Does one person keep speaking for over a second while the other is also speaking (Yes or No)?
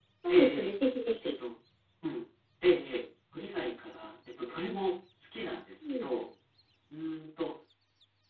No